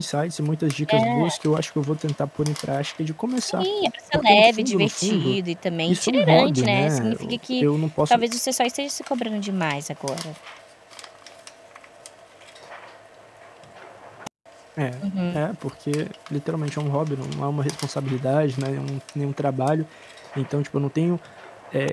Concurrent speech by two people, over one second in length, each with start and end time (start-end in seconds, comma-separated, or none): 4.1-5.4, 5.9-7.6